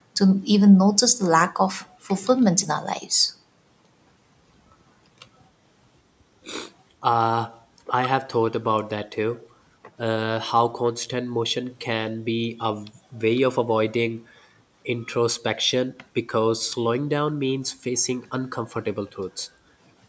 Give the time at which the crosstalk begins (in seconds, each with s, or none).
none